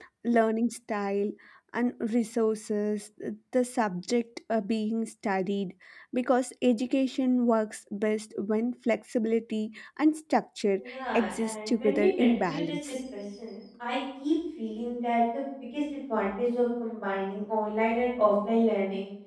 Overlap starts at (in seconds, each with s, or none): 10.8 s